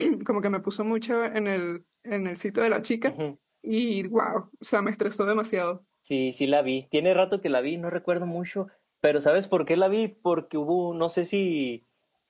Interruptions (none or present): none